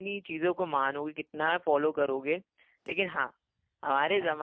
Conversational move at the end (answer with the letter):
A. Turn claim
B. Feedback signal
B